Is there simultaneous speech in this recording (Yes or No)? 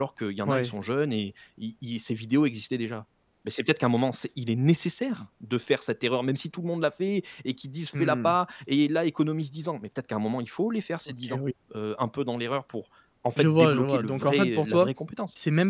Yes